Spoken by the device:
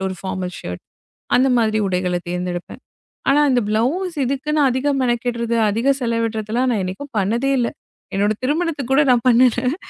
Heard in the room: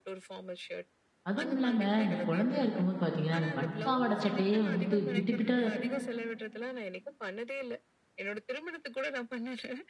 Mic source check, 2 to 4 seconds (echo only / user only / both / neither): both